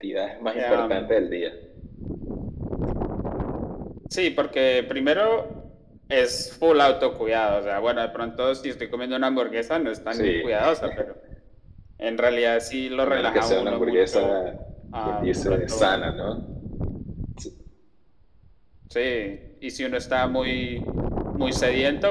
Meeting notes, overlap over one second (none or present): present